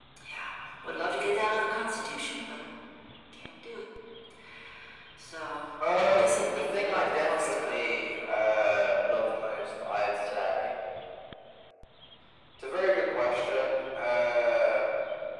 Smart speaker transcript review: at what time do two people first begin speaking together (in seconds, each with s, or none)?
5.9 s